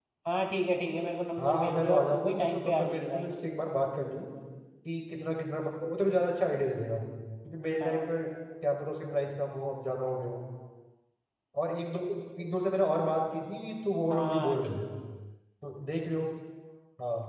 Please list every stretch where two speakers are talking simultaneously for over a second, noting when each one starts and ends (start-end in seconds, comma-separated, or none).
1.4-3.3